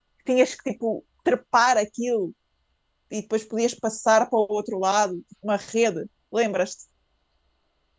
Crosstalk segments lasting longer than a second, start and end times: none

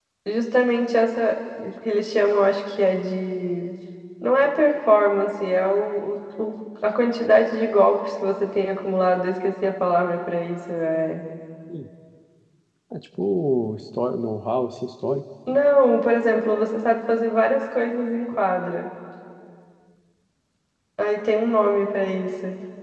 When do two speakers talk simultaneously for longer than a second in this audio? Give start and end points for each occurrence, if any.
none

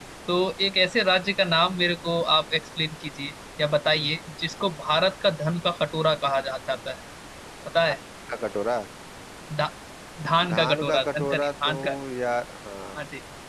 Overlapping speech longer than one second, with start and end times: 10.5-11.8

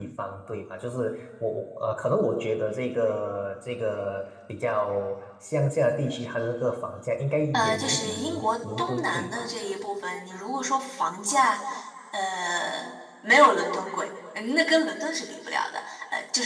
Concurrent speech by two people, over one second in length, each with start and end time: 7.5-9.5

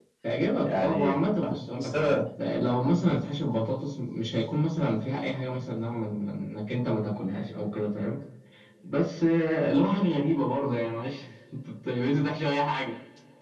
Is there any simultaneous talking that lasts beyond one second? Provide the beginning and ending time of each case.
0.6-2.2

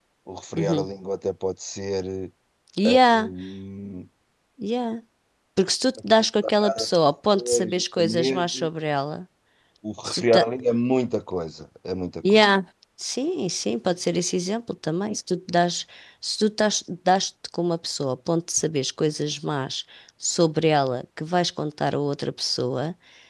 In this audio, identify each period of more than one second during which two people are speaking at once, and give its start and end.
7.3-8.7

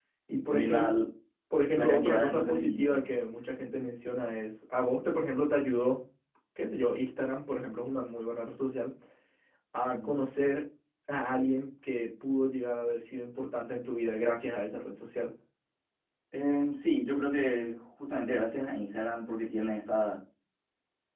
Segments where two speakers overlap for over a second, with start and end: 1.8-3.1

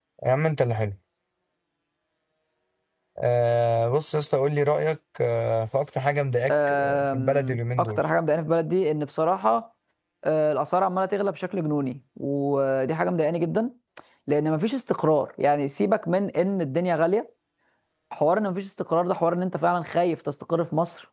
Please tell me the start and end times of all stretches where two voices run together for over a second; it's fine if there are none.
6.5-8.0

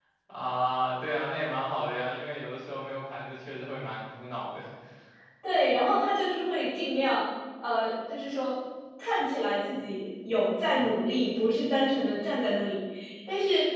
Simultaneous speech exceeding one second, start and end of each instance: none

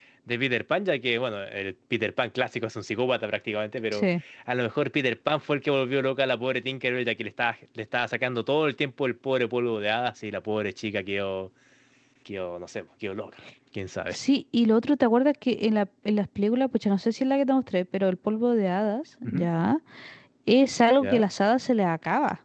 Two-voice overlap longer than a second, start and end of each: none

